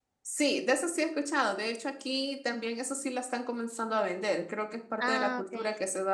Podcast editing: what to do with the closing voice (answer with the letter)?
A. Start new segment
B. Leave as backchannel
B